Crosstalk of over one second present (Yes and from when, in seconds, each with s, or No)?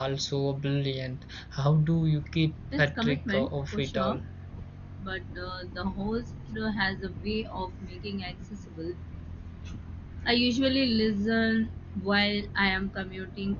Yes, from 2.7 s